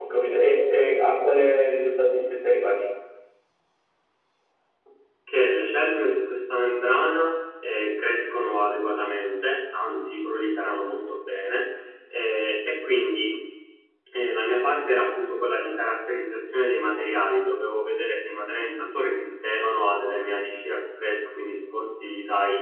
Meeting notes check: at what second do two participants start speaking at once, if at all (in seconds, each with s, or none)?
none